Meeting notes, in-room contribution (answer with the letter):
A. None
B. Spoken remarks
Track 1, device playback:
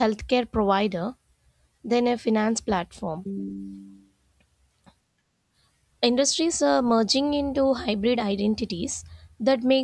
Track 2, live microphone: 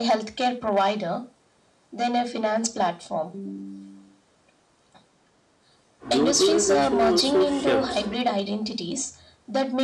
B